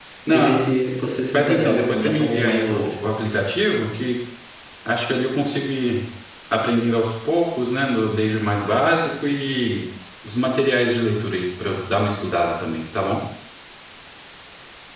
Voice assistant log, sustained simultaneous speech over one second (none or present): present